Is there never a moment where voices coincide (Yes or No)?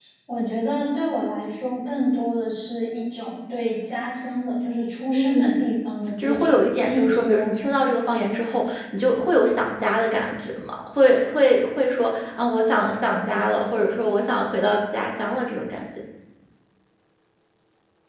No